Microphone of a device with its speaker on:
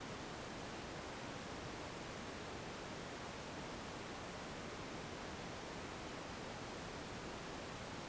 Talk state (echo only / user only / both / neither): neither